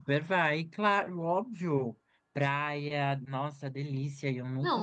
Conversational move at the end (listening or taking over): taking over